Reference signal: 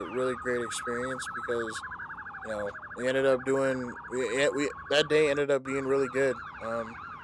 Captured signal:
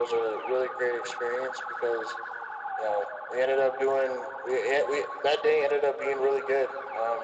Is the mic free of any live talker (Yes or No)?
Yes